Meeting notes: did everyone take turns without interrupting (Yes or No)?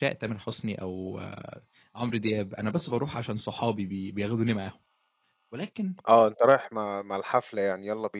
Yes